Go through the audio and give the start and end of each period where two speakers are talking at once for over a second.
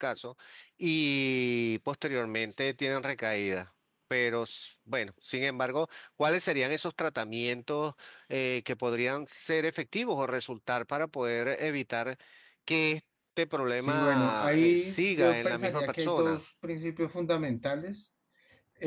13.8-16.4

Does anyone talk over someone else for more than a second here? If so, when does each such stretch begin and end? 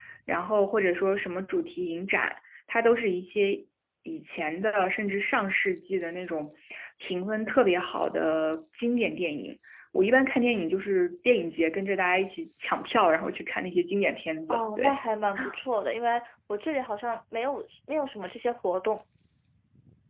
none

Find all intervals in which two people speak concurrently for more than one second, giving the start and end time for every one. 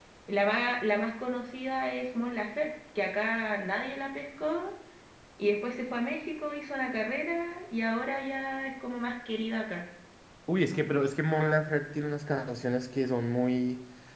none

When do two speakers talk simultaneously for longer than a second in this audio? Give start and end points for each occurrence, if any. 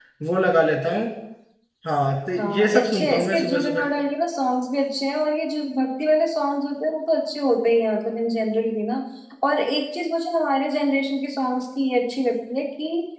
2.4-3.8

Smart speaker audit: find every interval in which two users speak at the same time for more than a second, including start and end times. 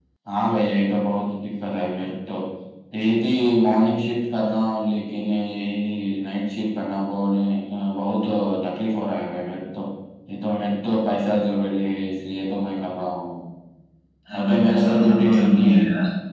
14.3-15.7

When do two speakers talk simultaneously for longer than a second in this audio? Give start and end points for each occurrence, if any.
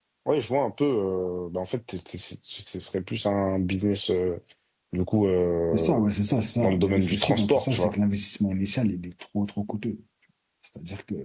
6.6-7.9

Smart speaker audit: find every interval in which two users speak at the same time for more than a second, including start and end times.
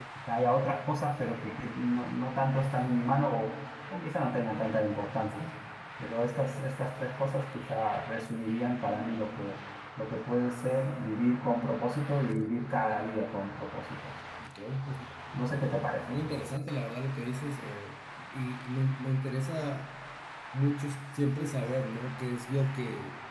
none

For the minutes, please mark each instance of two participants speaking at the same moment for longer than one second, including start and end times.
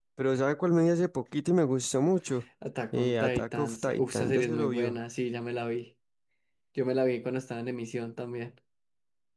2.9-5.0

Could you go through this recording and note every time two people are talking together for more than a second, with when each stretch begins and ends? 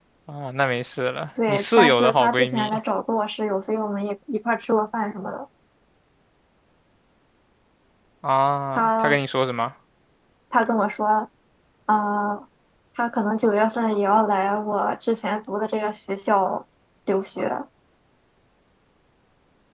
1.5-2.8

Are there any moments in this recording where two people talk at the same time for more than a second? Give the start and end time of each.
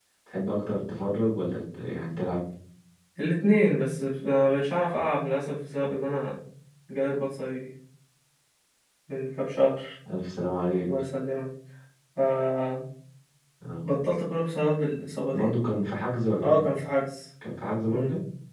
none

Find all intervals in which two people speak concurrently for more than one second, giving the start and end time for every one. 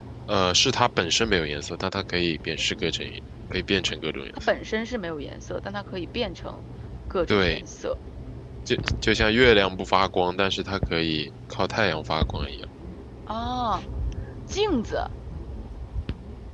none

